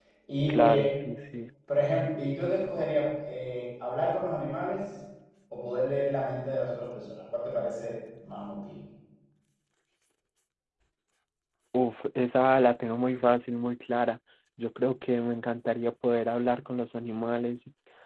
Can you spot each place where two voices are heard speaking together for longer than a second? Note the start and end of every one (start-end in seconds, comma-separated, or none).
none